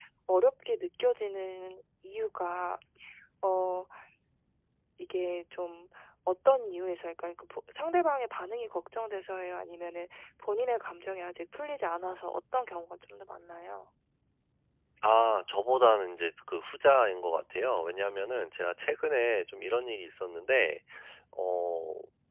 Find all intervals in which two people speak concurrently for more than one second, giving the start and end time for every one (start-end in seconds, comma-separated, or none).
none